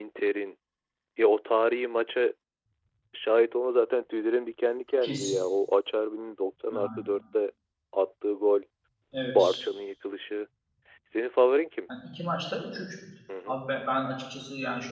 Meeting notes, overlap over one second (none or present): none